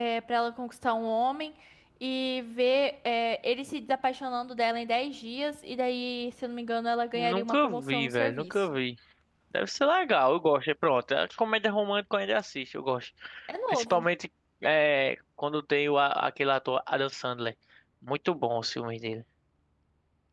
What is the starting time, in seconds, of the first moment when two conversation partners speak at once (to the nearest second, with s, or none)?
7 s